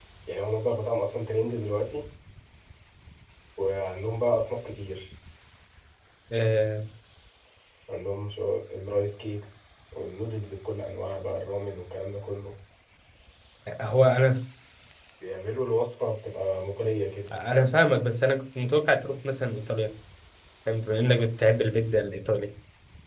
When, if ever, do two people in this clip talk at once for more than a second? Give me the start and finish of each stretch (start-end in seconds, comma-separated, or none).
none